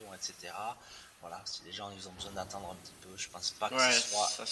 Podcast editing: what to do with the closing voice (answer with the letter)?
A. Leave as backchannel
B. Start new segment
B